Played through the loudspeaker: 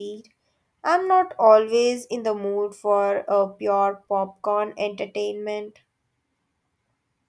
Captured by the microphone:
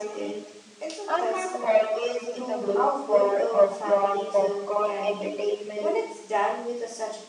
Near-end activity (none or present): present